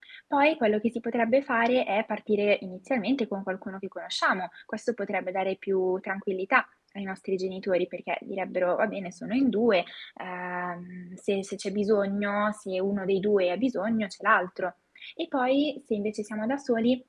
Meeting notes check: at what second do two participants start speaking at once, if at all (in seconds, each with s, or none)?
none